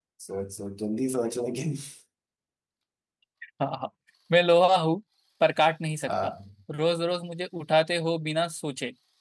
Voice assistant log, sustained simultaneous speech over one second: none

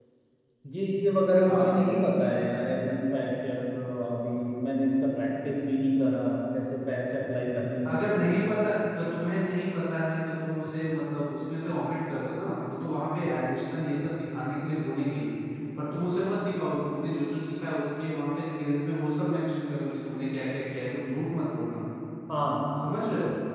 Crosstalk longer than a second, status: none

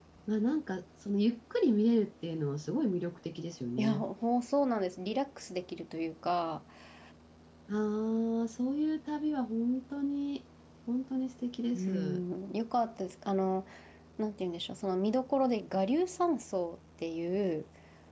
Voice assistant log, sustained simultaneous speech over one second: none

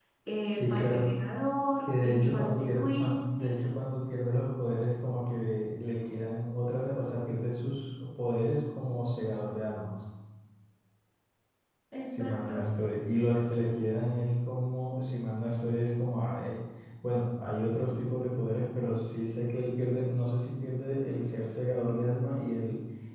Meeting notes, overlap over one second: present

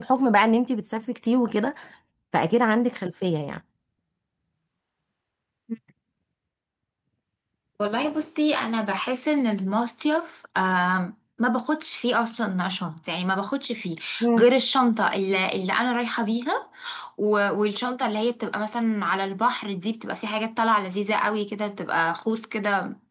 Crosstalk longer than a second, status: none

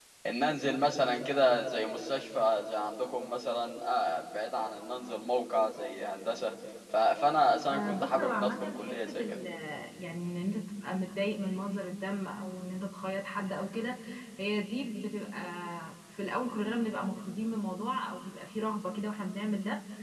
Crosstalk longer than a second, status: present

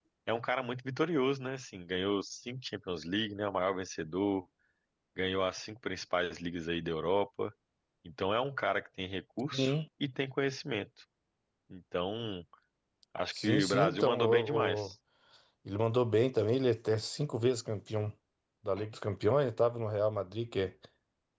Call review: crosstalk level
present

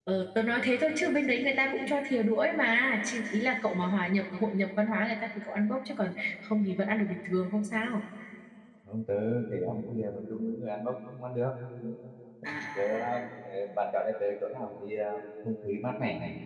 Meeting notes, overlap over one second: none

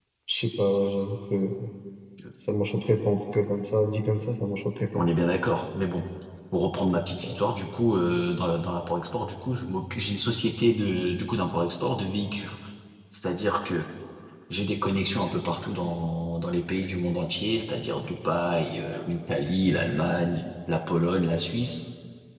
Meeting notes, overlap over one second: none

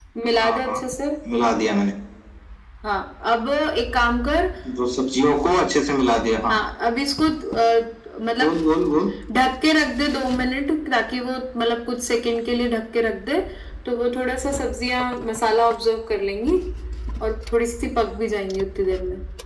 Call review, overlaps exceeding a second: none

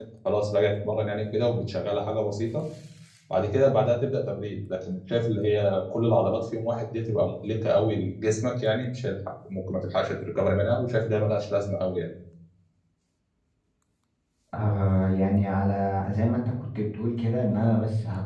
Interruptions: none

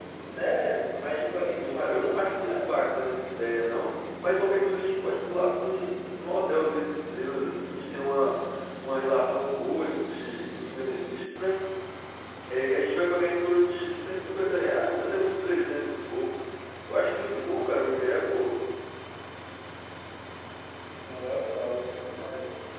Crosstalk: present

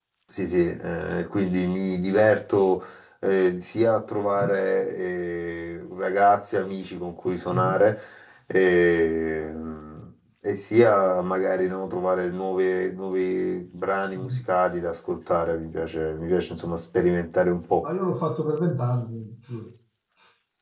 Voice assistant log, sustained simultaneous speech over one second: none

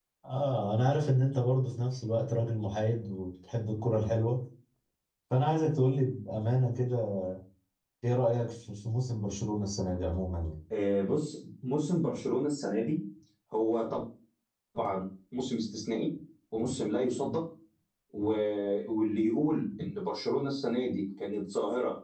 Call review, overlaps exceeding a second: none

